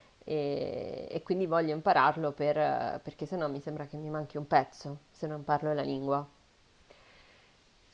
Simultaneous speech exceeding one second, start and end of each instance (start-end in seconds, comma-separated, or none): none